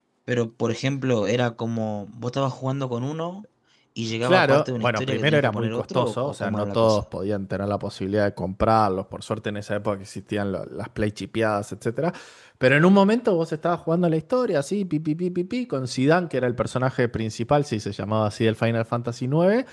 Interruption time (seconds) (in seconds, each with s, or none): 4.2 s